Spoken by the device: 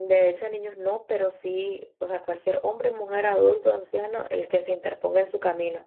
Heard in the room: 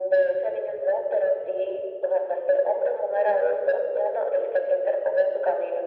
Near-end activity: none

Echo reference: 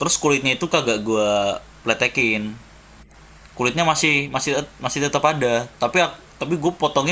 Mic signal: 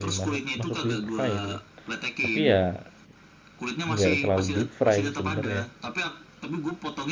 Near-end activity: present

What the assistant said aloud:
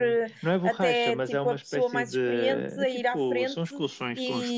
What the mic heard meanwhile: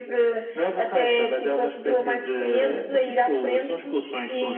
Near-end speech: present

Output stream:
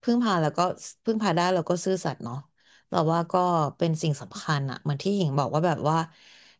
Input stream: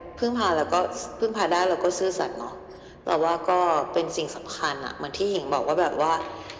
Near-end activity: none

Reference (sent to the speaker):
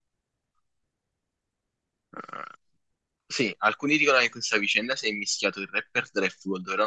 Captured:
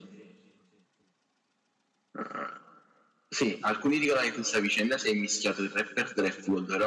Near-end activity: none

